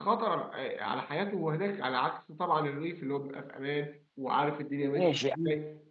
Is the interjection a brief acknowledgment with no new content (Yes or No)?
No